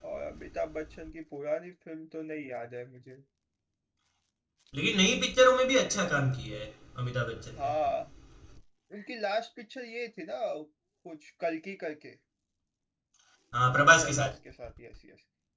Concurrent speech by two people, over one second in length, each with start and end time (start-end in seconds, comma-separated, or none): none